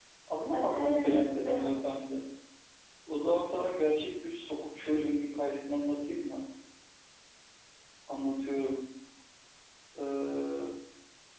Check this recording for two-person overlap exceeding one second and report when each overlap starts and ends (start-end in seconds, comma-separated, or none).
0.5-1.9